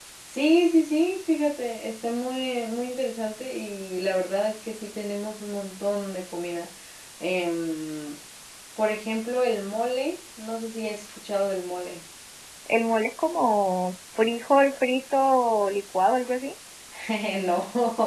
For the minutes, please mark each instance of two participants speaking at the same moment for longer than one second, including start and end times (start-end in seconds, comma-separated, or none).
none